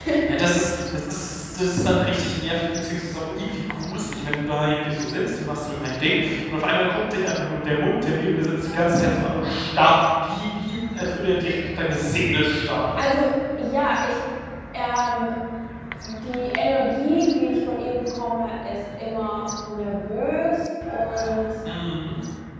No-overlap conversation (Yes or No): Yes